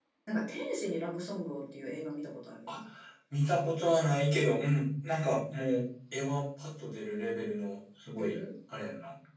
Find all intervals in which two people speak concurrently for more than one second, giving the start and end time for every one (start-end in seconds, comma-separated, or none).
none